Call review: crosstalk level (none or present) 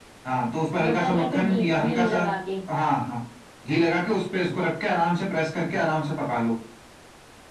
present